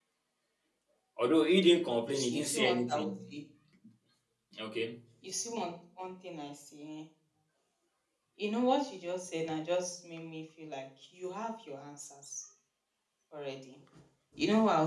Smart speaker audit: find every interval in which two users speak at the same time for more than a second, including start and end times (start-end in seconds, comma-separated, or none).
2.1-3.4